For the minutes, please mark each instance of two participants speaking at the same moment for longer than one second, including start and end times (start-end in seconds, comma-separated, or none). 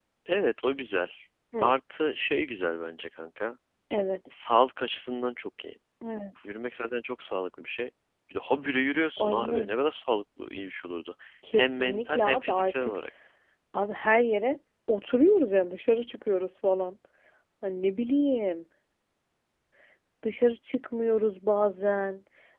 11.5-13.0